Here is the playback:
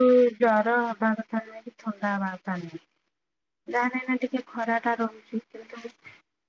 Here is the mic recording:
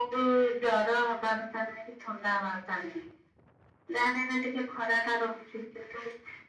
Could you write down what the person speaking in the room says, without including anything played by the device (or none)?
none